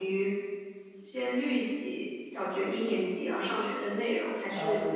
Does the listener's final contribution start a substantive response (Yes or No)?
No